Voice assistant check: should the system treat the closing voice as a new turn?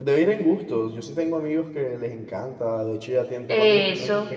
No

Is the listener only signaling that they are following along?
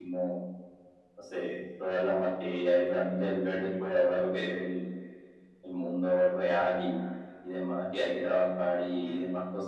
Yes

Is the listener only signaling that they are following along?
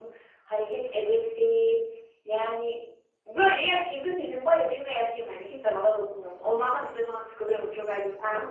No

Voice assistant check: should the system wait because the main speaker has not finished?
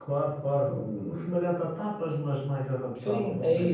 No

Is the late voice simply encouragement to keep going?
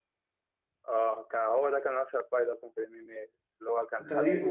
Yes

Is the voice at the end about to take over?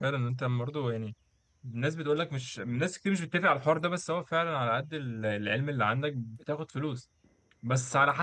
No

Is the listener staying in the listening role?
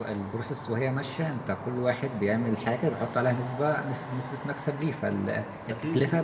Yes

